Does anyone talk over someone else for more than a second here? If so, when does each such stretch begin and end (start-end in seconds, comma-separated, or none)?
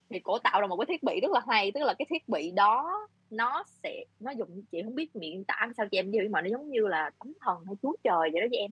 none